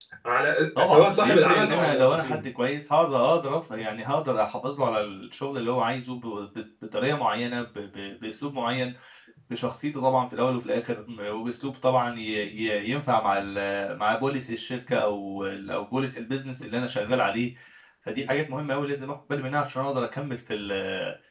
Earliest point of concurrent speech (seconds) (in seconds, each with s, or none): 0.8 s